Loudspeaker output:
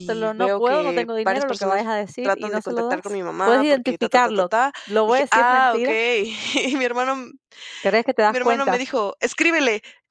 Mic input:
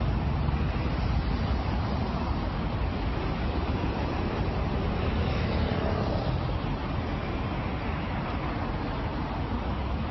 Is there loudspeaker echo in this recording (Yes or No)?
No